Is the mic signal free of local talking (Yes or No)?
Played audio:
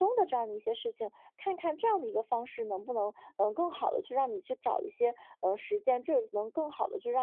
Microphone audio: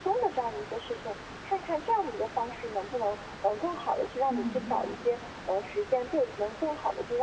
No